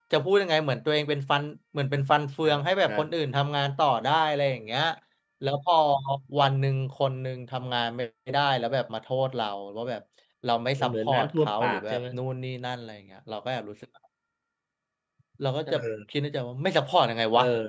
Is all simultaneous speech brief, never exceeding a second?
No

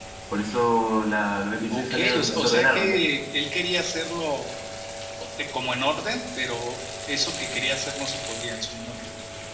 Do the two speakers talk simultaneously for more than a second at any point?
Yes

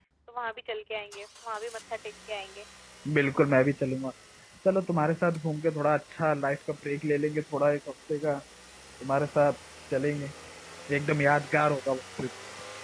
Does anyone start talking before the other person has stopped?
No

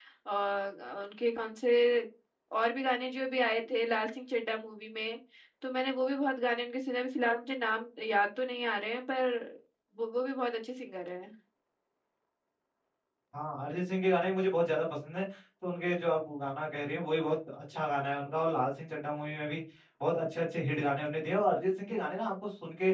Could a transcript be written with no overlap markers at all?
Yes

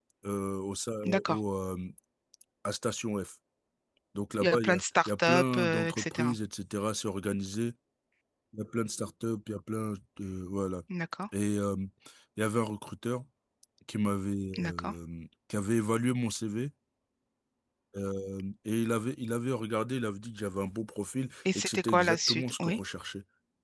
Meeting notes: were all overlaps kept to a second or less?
No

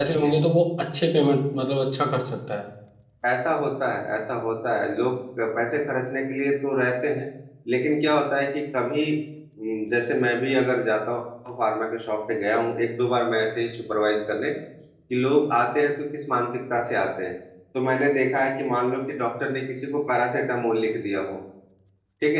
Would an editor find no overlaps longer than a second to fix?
Yes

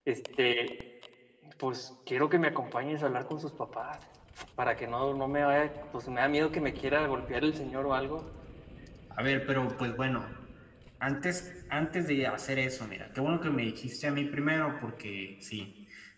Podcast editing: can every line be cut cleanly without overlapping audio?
Yes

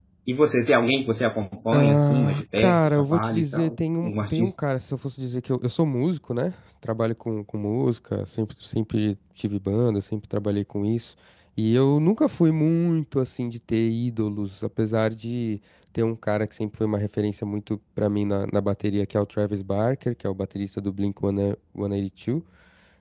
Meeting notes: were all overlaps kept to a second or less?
No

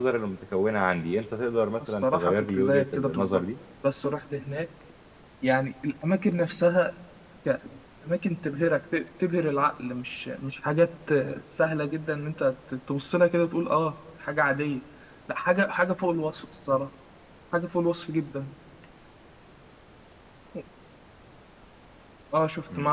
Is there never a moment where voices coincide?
No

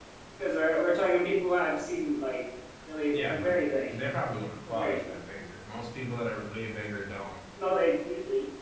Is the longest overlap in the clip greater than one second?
No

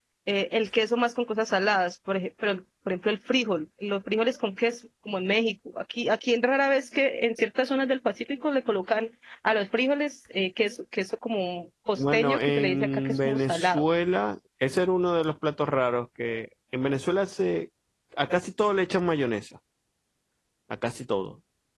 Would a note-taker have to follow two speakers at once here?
Yes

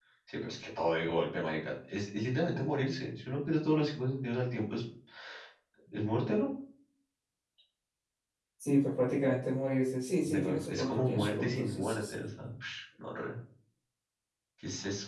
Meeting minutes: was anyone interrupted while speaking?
Yes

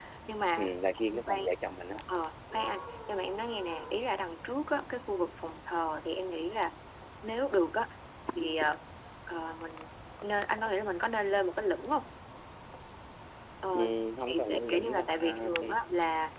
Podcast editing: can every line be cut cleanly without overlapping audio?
No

